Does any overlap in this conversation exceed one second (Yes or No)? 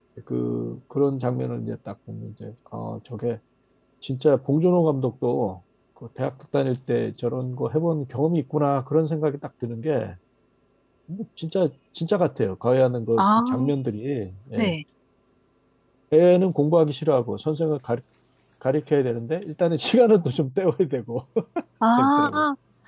No